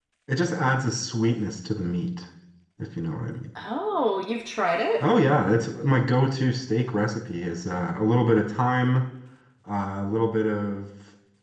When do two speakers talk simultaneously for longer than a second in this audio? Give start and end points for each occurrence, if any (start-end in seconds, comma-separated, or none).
none